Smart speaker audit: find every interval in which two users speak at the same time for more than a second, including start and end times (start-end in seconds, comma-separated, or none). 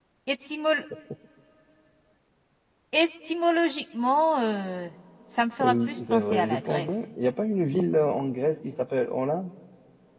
5.6-6.9